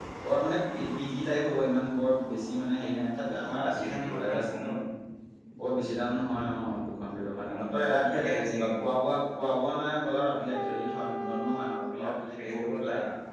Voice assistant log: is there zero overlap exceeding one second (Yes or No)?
No